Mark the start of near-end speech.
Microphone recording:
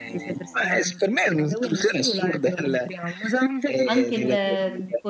3.9 s

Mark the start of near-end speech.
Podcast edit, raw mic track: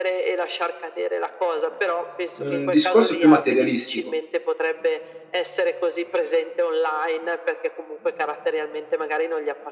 2.4 s

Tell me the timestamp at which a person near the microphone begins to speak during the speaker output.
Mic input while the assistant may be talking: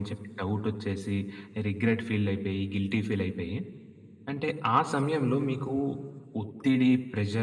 none

